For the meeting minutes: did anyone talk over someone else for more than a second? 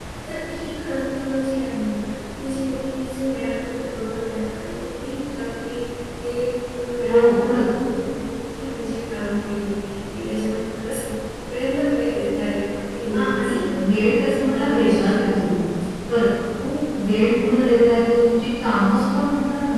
Yes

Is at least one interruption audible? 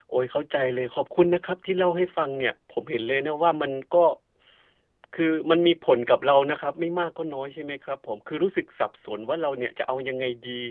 No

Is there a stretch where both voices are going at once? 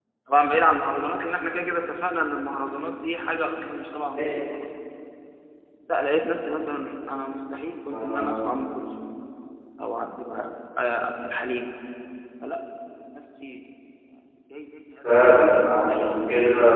Yes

